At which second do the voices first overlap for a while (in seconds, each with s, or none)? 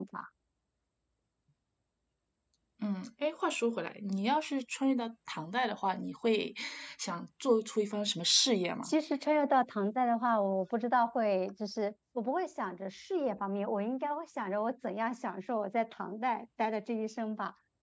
none